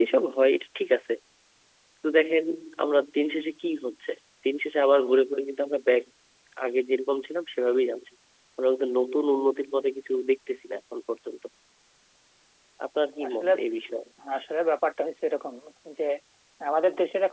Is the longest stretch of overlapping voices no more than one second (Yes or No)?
Yes